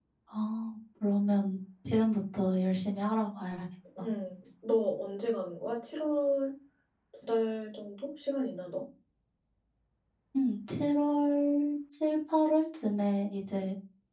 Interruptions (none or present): none